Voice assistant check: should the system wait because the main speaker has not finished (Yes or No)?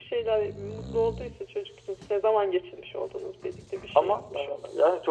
No